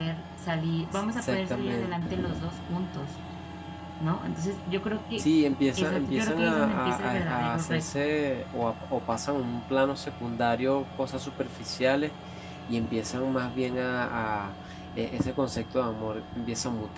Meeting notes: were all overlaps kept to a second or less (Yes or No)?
No